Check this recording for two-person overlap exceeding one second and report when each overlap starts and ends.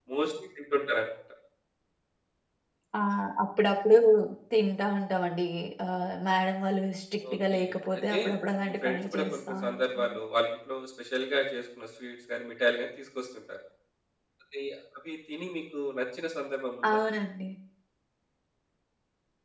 8.6-10.2

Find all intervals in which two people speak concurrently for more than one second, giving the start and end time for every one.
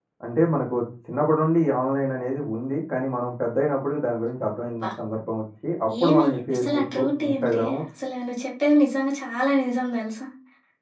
6.0-7.8

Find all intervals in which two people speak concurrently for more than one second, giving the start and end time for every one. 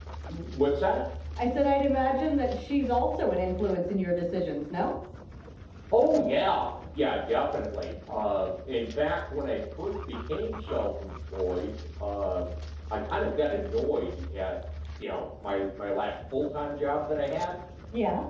none

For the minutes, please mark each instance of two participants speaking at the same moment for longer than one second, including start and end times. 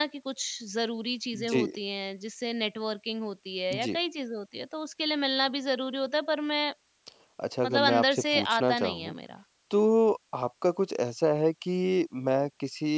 7.7-9.1

